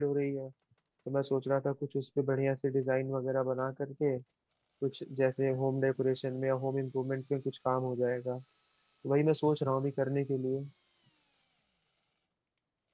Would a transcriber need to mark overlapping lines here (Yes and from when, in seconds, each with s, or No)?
No